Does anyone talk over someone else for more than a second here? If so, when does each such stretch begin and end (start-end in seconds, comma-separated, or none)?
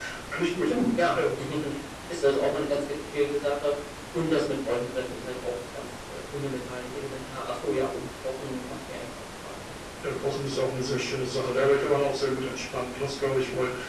none